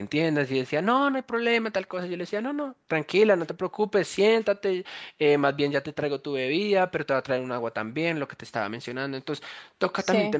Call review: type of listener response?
listening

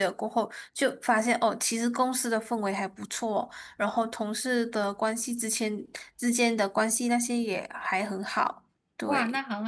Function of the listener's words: taking over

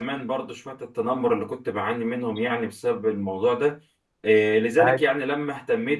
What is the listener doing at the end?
listening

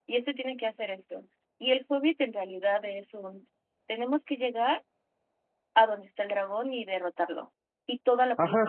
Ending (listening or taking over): taking over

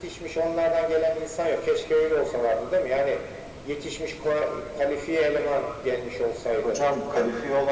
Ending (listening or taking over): taking over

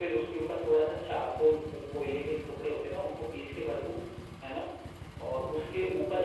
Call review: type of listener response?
listening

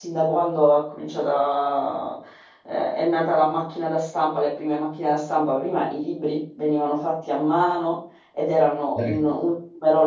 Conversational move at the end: listening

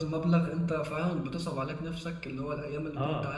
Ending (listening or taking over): listening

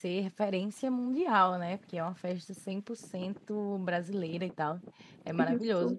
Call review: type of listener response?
listening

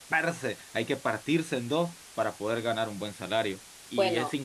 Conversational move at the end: listening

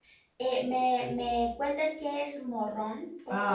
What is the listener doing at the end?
taking over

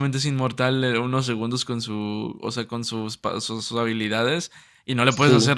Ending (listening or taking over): listening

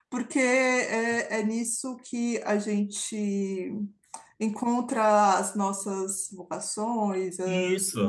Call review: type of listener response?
taking over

